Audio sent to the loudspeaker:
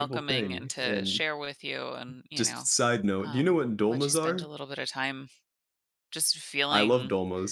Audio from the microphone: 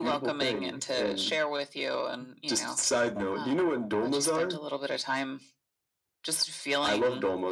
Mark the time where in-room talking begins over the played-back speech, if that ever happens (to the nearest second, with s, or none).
none